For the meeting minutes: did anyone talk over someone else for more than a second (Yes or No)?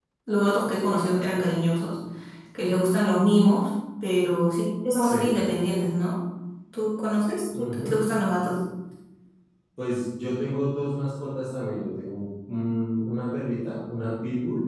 No